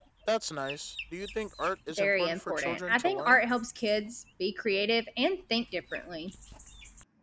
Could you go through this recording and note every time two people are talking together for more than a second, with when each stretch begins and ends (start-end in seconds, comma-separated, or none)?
2.0-3.4